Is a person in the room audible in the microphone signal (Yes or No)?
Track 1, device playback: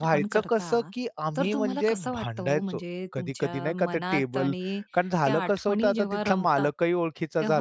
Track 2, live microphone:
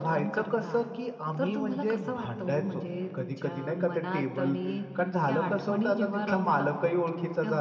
Yes